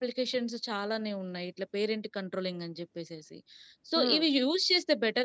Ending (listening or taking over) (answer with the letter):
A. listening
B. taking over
A